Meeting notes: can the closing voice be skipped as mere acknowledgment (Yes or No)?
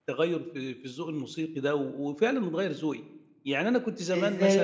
No